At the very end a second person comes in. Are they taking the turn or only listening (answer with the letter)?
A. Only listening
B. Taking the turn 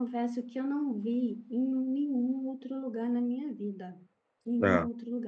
A